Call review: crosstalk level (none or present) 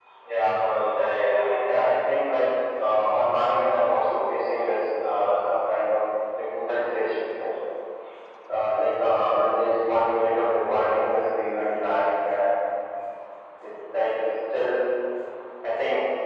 none